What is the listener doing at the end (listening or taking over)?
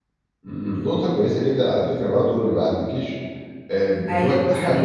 listening